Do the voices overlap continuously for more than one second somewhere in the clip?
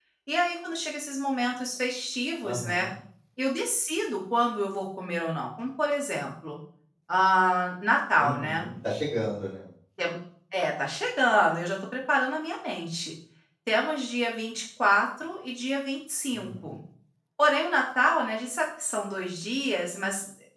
No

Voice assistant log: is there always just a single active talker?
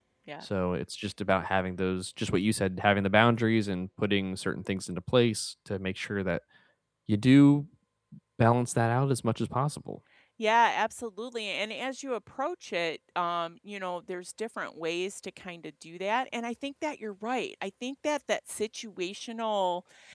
Yes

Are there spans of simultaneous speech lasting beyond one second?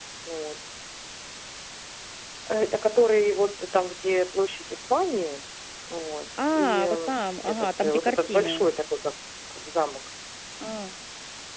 Yes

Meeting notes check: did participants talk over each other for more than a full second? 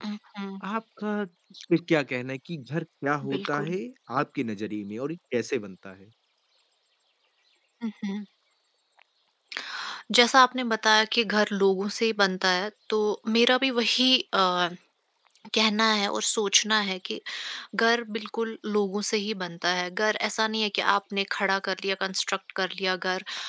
No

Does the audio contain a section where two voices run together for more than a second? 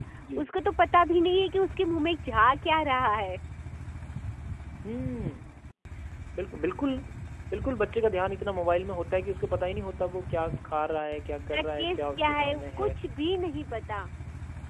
Yes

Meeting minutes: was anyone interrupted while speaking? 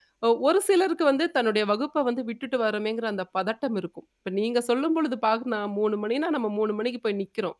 No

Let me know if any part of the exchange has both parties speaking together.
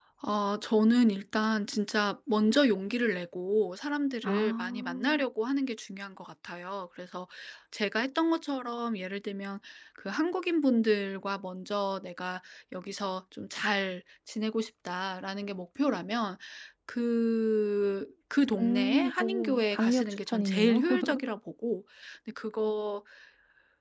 Yes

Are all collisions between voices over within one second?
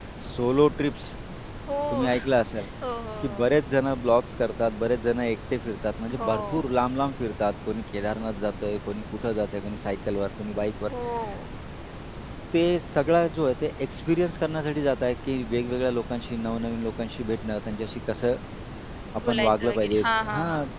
No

